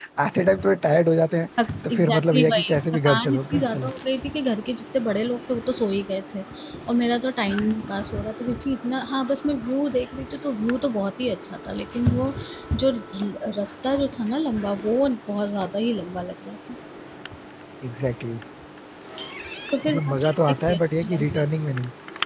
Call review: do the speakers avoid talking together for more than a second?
No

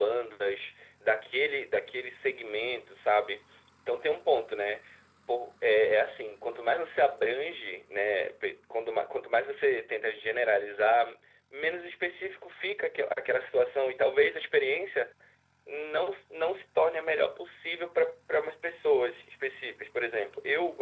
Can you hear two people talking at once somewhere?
No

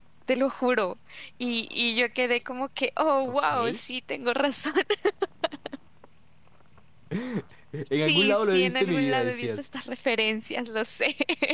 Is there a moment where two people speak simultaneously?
Yes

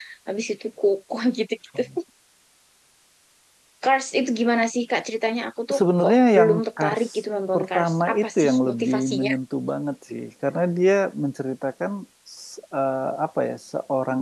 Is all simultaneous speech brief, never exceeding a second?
No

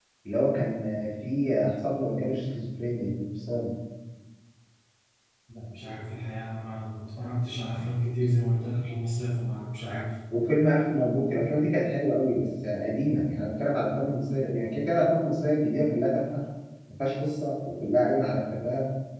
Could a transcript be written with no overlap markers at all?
Yes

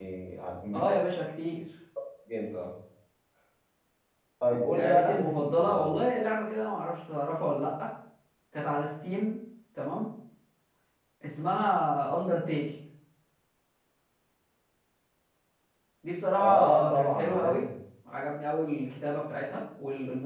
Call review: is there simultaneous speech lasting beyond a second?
Yes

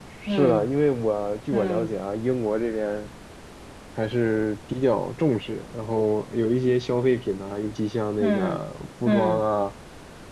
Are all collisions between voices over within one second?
Yes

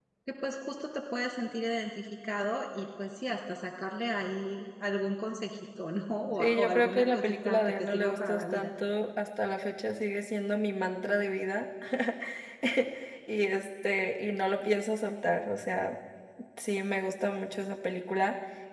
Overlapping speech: Yes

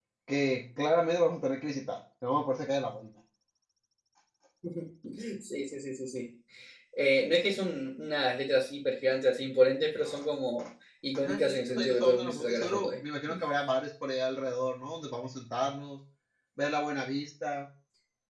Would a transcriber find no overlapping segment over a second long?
No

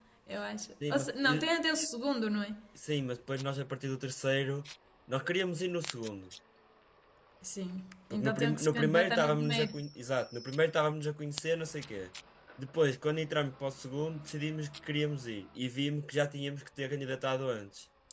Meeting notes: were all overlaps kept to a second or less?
No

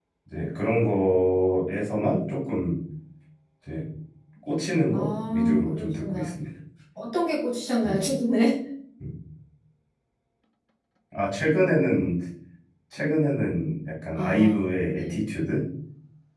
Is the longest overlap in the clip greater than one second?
Yes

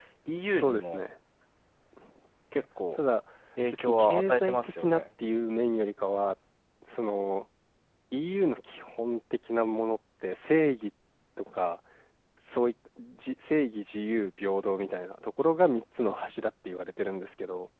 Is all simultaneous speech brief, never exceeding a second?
No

